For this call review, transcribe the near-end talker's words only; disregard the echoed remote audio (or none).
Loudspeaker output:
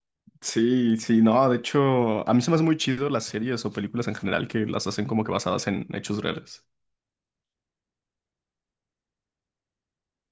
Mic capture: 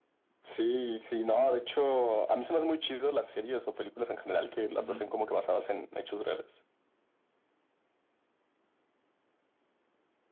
Ujú.